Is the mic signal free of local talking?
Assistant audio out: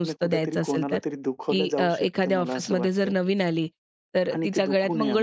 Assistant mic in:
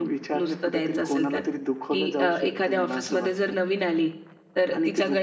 Yes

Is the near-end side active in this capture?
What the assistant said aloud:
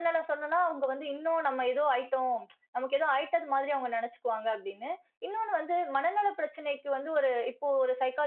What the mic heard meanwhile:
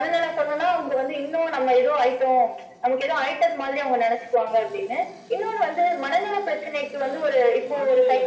Yes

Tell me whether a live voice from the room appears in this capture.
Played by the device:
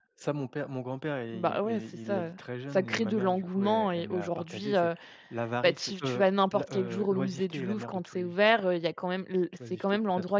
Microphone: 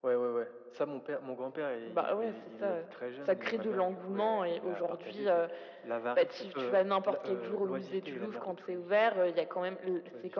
No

